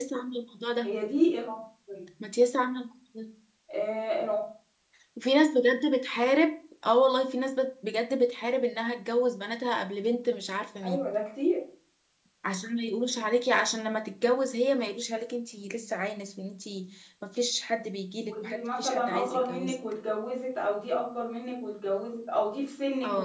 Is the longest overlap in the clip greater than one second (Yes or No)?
Yes